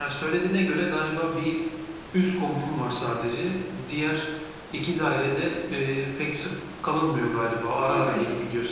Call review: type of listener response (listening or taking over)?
taking over